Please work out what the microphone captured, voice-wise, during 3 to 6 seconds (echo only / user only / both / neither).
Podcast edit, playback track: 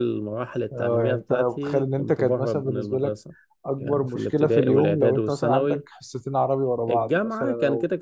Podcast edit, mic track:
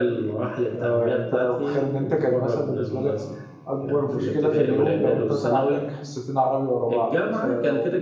echo only